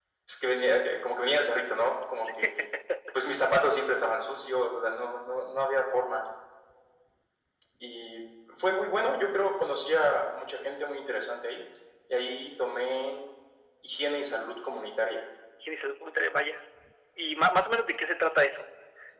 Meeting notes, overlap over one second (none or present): none